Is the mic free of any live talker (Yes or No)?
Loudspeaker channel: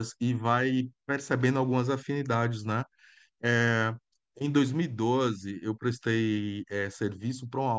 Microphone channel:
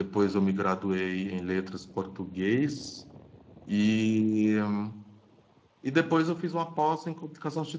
No